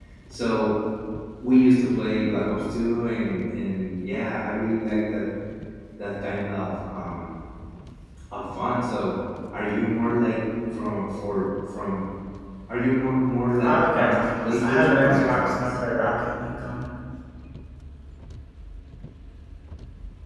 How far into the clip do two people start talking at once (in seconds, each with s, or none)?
13.6 s